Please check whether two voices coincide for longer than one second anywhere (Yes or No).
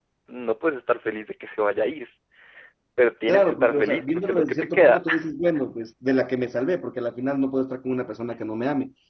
Yes